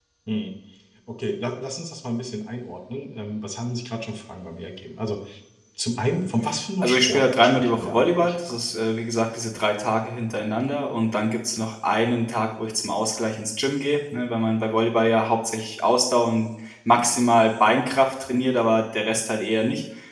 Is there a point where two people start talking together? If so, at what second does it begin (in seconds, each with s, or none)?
6.8 s